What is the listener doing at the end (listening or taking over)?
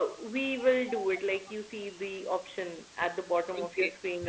taking over